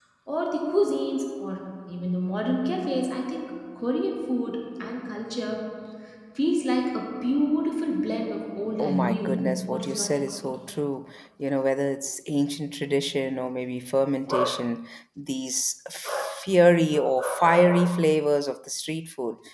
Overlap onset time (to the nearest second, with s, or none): 9 s